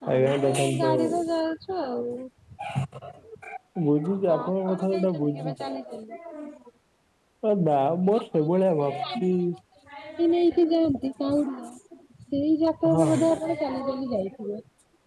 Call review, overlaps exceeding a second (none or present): present